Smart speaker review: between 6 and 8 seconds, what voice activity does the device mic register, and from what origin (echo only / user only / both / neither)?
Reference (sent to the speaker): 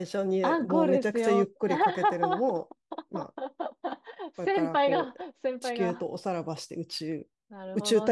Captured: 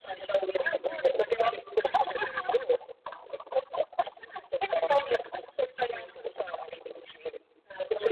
echo only